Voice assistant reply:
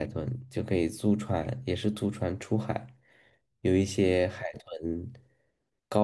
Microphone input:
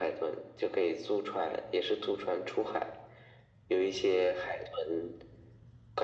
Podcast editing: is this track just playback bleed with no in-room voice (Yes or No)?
Yes